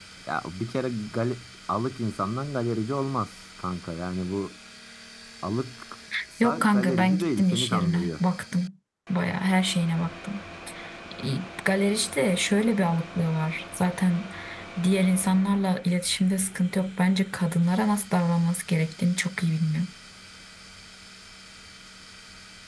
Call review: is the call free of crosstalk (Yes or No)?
No